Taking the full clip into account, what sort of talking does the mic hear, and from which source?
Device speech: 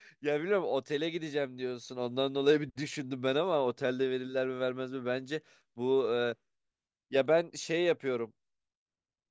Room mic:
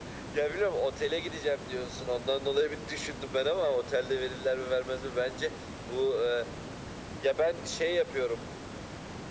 echo only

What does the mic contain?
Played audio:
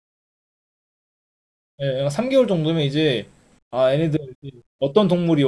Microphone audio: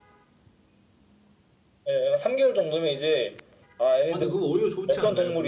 both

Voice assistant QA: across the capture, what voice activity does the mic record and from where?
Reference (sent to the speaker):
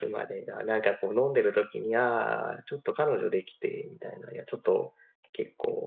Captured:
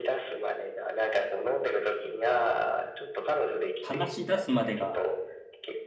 both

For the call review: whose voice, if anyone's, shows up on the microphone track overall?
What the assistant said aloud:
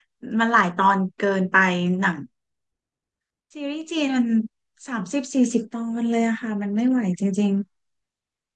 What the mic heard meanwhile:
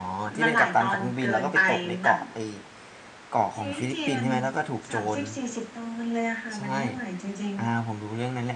both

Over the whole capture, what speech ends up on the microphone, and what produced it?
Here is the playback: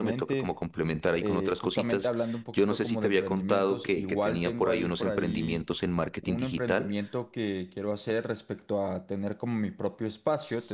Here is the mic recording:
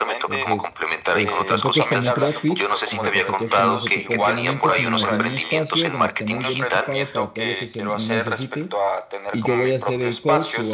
both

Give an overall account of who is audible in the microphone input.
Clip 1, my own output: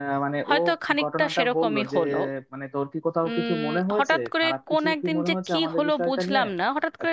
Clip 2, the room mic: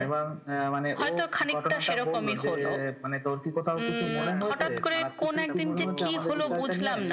both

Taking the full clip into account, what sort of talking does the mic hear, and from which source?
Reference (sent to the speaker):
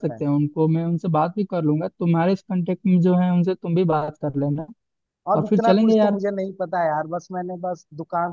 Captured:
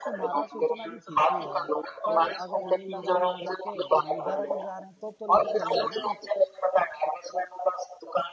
both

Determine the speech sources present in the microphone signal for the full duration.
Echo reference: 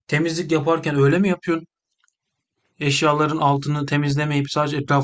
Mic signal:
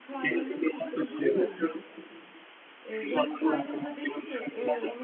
both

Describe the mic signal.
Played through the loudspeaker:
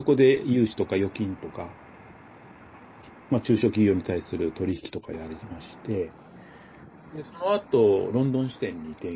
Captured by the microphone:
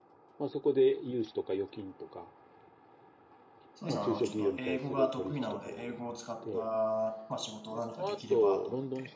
both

